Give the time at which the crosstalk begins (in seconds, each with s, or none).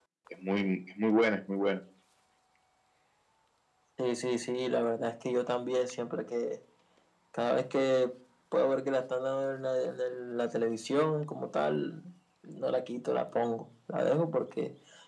none